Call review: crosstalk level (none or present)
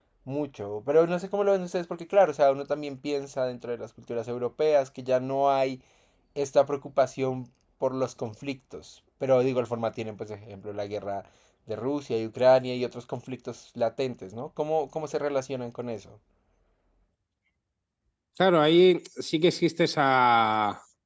none